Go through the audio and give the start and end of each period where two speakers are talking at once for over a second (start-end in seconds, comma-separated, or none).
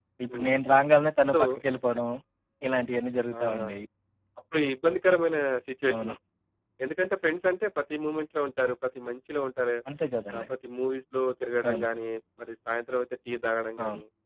none